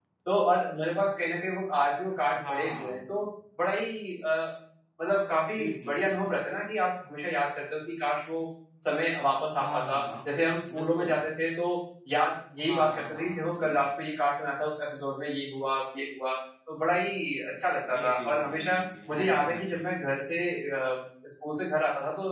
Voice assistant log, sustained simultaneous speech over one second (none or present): present